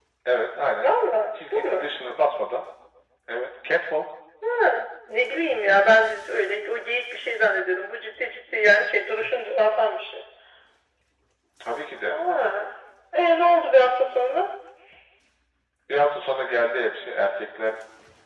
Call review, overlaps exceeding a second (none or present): none